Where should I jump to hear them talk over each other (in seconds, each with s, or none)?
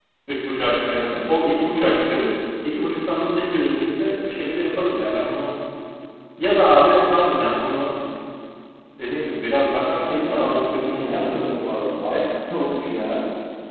9.7 s